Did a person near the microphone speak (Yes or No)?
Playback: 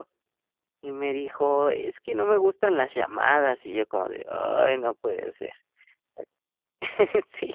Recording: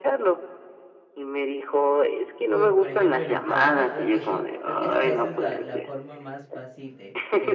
Yes